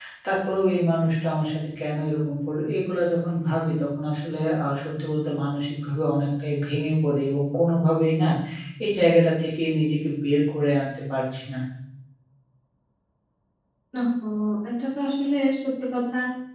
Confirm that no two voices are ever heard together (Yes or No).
Yes